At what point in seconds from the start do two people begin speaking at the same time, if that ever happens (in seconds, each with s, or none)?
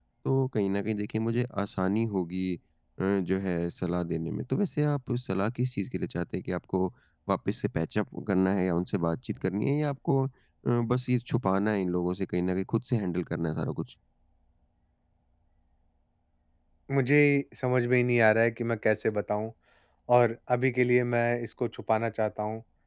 none